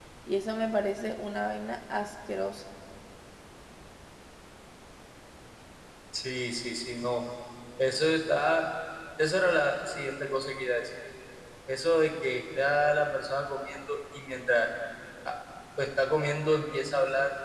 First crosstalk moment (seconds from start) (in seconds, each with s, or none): none